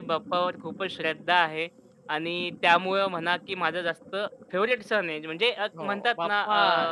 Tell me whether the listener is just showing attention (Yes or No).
Yes